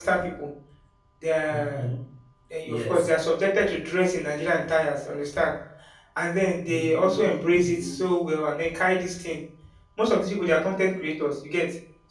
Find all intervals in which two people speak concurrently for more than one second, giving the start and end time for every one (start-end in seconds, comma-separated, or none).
6.7-8.1